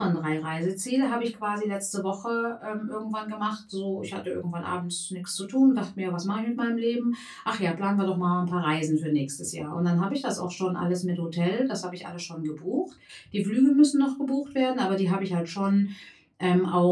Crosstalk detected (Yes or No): No